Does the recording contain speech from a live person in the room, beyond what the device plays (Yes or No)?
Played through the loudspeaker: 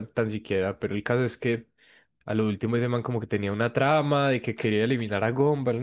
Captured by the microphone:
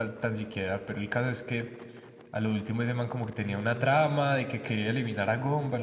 Yes